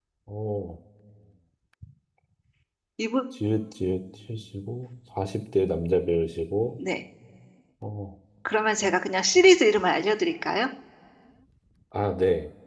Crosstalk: none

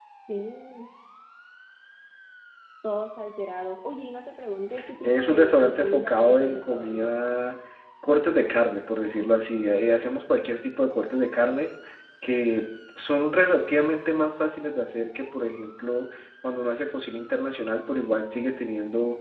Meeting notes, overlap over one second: present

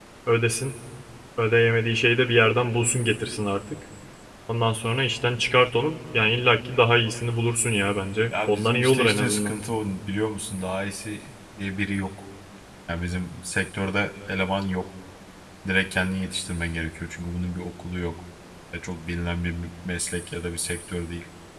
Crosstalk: present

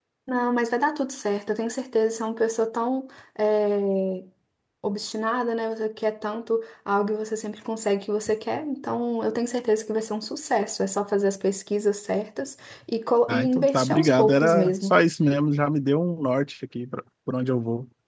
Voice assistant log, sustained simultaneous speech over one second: present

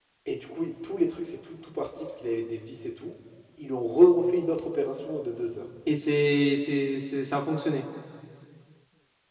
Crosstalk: none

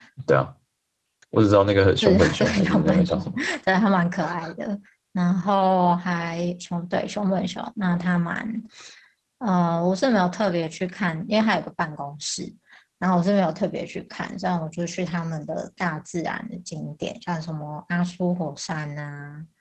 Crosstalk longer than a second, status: present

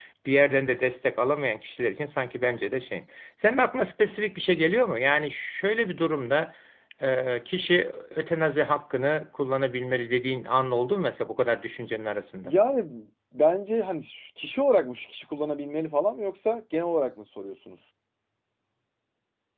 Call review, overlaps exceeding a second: none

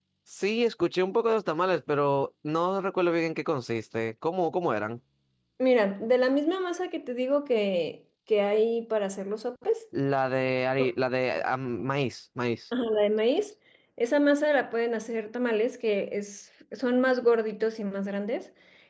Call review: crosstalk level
none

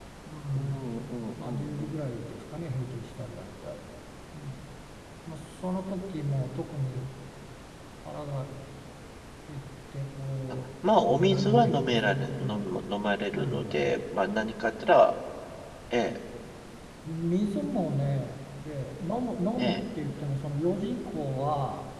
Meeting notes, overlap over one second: present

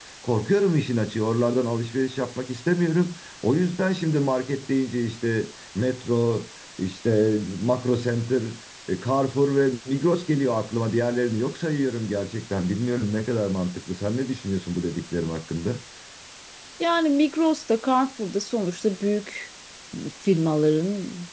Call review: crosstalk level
none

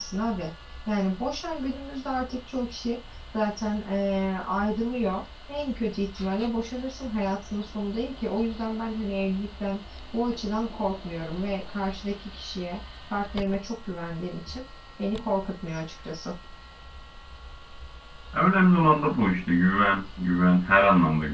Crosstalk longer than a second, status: none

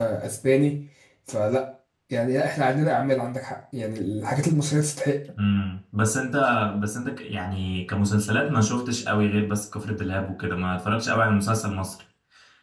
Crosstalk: none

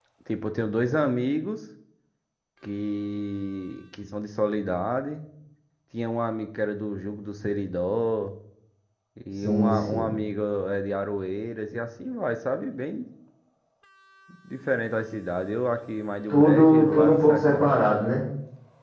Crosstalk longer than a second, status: present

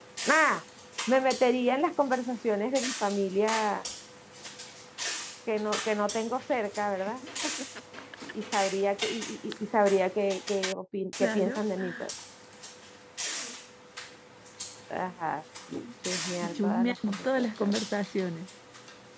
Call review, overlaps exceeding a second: present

